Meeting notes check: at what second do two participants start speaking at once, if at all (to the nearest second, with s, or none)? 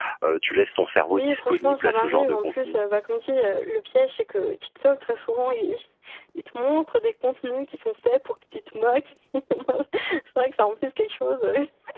1 s